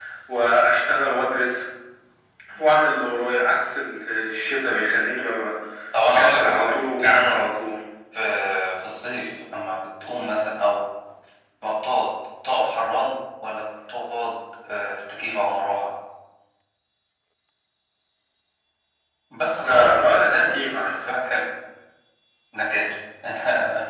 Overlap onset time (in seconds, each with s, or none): 6.1 s